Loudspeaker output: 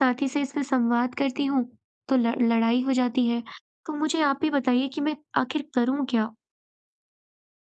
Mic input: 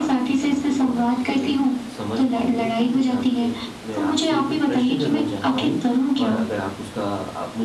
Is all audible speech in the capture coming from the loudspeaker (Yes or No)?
No